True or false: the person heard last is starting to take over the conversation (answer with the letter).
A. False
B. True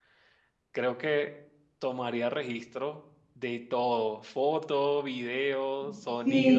B